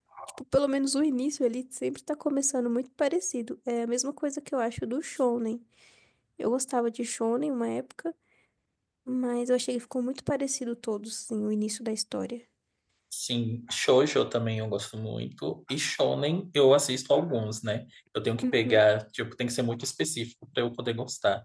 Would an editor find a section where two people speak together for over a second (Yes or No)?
No